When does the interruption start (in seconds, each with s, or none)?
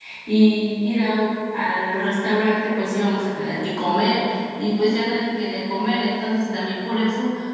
none